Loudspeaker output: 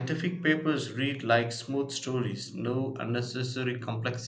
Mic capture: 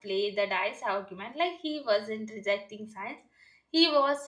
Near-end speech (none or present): present